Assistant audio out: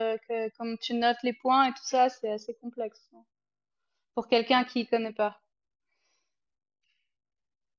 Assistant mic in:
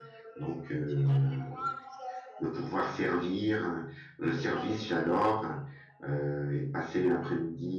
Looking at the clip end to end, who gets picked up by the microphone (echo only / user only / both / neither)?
both